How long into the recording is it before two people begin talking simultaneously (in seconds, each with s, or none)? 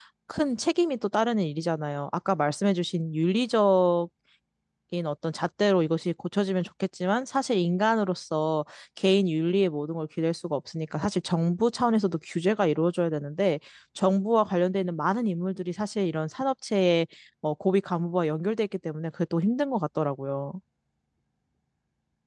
none